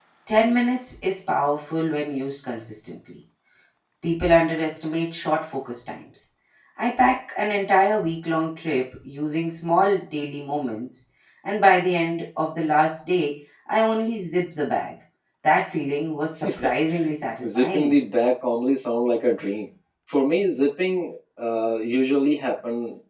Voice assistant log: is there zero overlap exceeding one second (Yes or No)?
Yes